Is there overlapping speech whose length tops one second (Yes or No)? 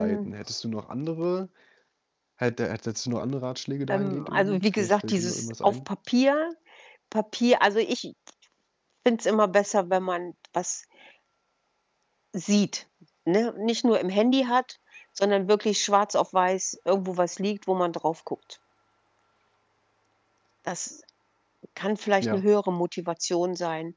Yes